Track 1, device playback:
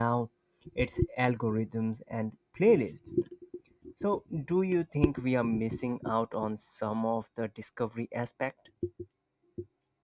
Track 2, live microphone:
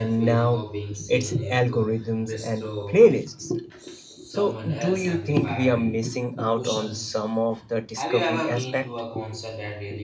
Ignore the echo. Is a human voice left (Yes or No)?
Yes